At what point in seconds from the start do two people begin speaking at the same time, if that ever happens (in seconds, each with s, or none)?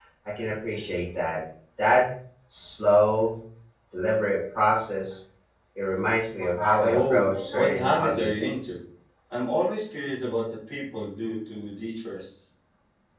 6.8 s